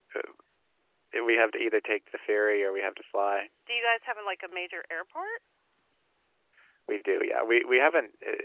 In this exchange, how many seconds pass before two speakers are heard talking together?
none

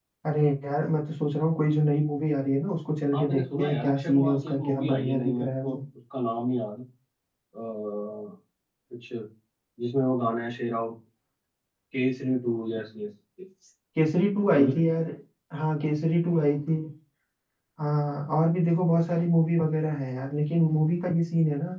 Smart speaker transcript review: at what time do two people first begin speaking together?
3 s

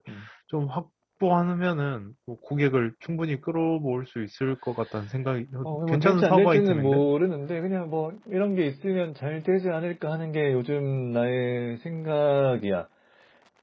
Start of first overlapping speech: 6 s

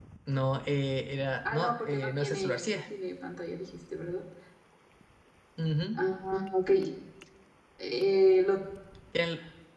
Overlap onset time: 1 s

